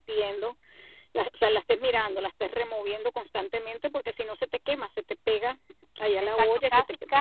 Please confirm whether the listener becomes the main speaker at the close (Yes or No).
Yes